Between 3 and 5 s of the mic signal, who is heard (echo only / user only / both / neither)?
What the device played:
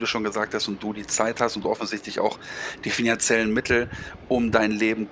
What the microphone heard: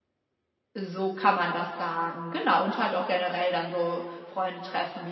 user only